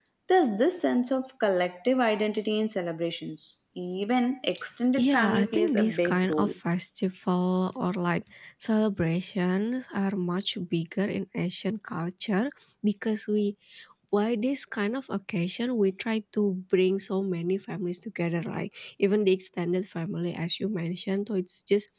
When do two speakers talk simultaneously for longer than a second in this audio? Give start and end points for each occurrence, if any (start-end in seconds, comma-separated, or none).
4.9-6.5